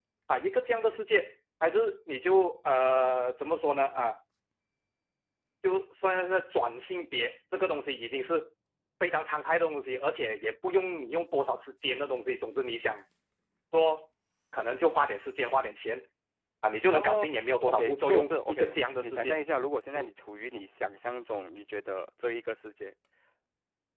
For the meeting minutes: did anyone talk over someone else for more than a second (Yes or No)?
Yes